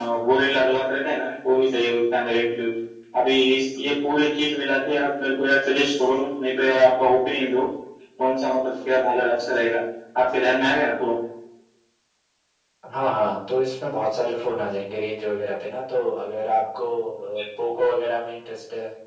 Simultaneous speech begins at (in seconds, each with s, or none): none